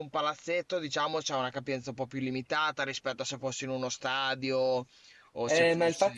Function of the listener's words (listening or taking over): taking over